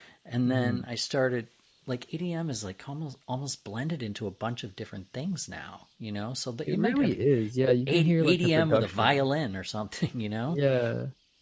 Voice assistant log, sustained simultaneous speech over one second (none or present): present